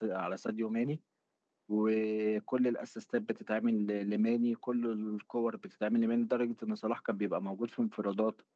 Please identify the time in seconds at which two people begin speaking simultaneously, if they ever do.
none

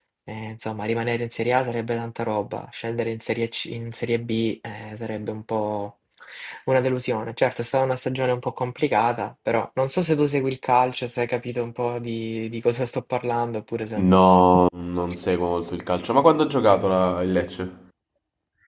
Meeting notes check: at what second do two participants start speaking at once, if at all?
none

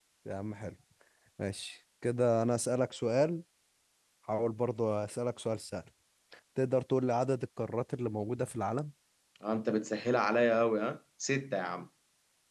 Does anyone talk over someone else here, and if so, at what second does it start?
none

